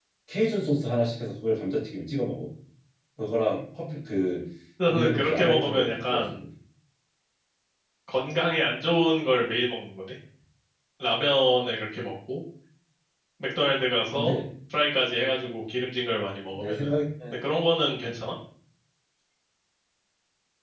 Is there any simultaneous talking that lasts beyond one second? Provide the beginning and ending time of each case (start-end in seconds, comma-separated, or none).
4.9-6.3